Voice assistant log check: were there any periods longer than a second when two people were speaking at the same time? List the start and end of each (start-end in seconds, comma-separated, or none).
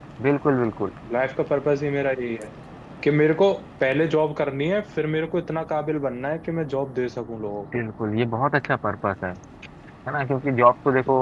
none